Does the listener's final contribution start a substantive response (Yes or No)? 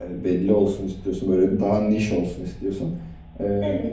No